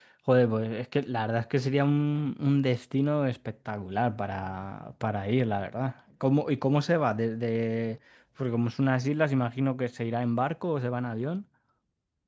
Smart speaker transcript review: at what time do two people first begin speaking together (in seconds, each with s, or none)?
none